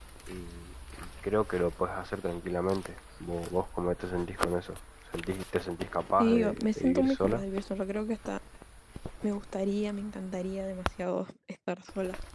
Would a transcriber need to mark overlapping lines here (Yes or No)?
Yes